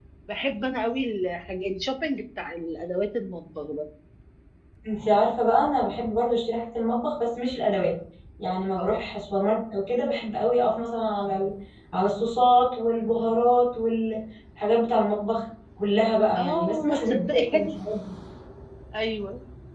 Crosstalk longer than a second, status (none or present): present